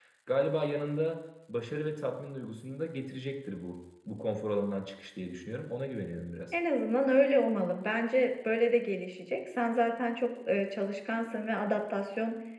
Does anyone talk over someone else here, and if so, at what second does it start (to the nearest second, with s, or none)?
none